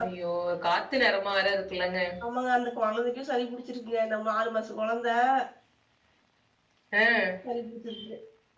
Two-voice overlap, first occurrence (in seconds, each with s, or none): none